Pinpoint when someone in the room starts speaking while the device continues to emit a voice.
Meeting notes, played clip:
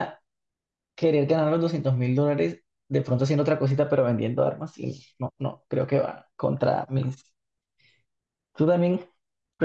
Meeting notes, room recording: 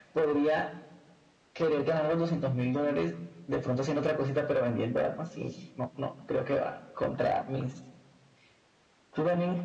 none

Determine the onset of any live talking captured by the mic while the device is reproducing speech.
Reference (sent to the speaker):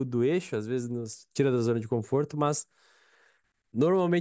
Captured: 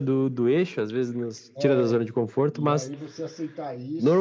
2 s

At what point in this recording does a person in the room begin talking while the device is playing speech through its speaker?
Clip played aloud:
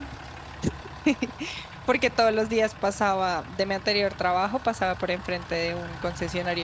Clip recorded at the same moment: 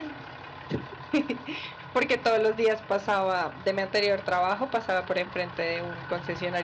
none

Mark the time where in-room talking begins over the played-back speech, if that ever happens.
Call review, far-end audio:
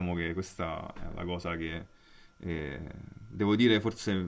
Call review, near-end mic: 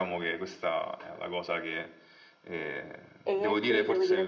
3 s

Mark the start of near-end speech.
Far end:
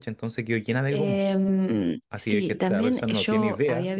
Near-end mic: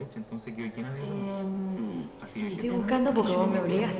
2 s

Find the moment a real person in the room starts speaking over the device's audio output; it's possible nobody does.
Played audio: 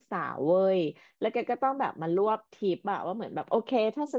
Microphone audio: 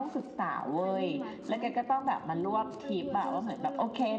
1 s

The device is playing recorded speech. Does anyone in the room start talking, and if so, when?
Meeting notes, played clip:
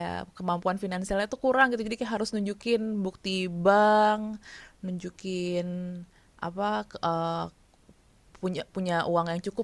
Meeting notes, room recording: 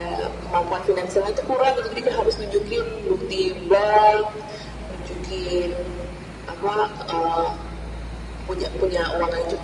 none

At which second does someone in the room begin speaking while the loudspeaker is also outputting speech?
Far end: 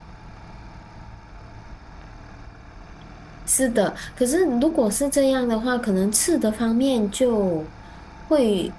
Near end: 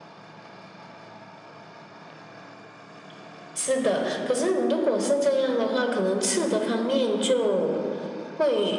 none

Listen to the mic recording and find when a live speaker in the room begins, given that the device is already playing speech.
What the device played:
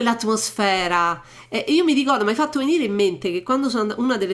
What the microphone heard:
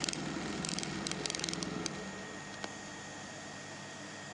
none

